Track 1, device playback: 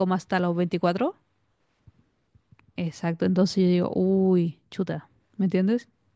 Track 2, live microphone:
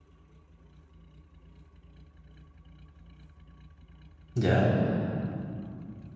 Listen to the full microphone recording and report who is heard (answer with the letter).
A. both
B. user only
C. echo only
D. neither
B